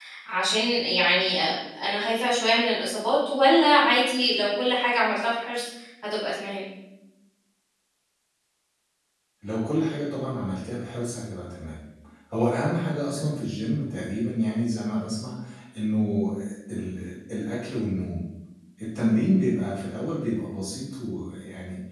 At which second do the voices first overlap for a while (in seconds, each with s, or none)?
none